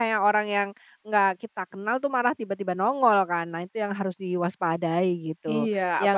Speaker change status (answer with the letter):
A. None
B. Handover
B